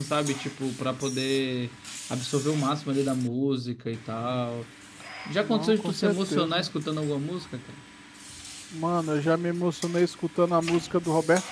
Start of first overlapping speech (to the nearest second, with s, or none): 5 s